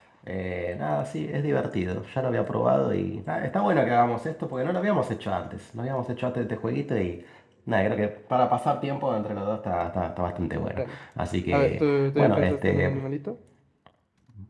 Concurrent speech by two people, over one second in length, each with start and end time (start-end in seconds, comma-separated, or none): 11.5-12.9